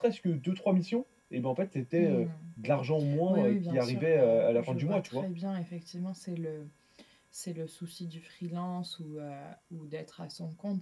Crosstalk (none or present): present